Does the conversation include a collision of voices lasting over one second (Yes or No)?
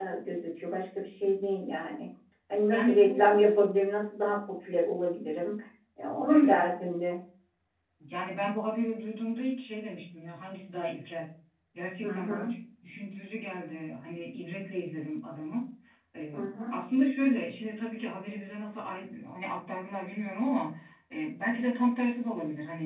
No